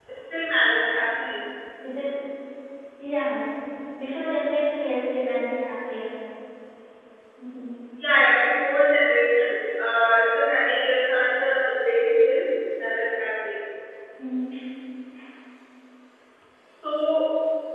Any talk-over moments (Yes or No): No